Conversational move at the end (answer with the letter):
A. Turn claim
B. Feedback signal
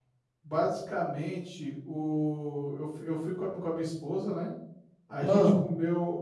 B